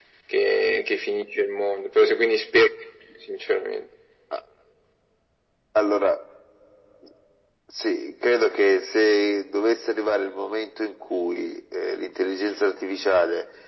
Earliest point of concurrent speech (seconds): none

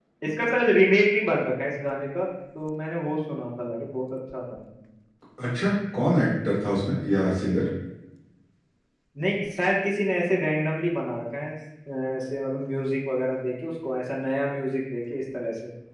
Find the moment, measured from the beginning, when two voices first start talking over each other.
none

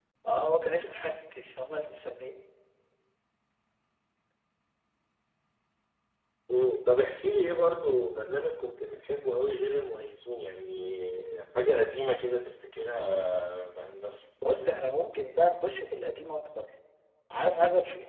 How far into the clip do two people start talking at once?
none

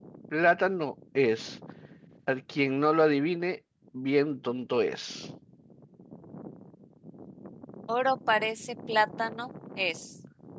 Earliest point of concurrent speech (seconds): none

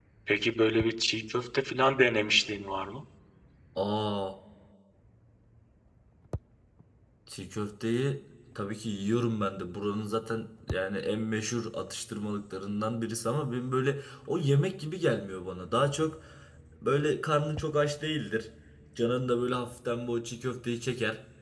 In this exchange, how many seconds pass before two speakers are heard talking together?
none

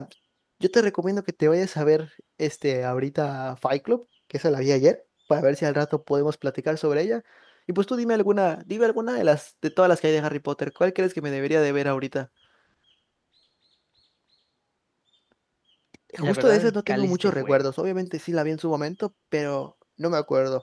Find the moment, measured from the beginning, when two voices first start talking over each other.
16 s

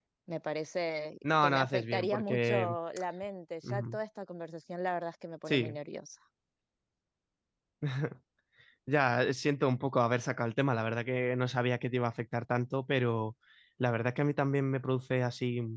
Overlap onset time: 1 s

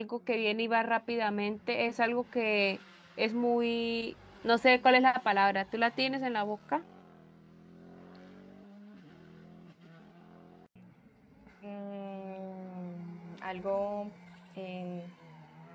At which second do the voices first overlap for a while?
none

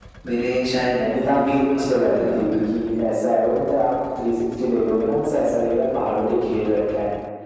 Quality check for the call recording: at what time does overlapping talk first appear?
1 s

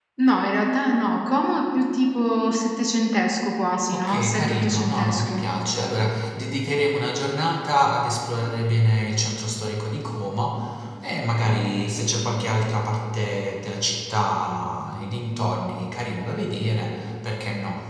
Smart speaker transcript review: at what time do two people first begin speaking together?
4 s

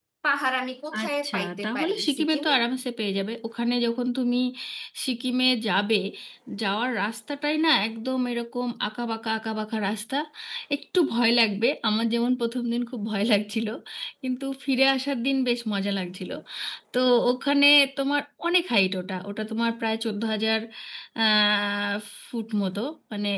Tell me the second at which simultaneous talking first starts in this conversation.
1 s

